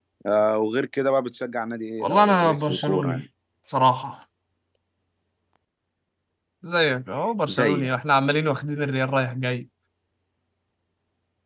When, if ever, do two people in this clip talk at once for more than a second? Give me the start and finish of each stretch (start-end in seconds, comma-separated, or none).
2.0-3.2